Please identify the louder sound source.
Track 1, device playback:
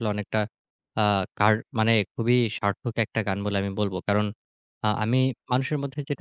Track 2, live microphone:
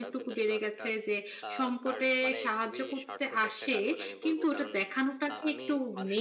user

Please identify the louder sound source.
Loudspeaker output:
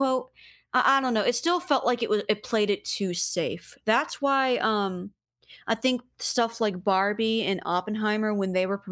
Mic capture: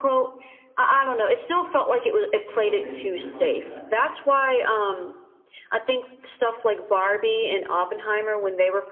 echo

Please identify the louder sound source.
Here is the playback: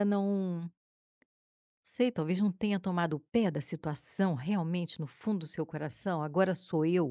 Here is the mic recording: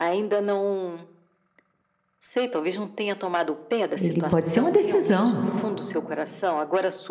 user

